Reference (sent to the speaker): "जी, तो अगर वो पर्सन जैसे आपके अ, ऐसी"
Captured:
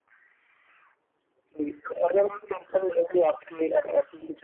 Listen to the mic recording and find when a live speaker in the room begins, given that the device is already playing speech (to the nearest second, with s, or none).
none